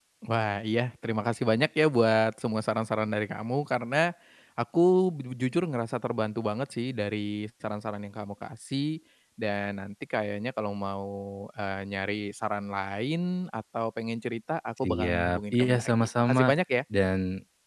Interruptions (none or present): present